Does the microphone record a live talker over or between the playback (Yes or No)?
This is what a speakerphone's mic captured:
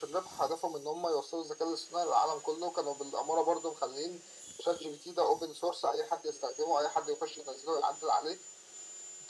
No